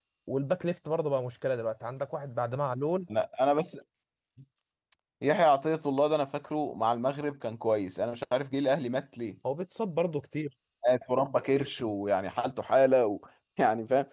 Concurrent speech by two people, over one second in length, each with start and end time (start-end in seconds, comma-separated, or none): none